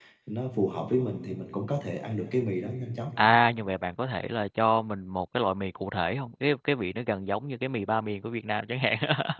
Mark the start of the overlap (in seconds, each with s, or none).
none